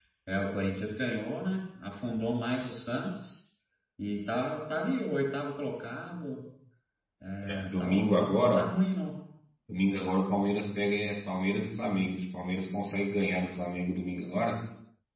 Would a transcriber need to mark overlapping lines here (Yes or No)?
Yes